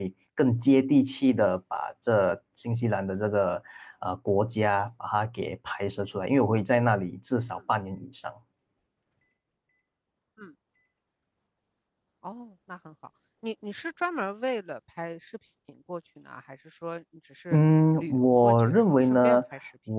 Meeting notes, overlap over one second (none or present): present